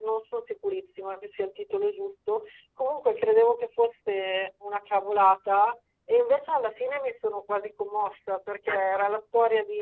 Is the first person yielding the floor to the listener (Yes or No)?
No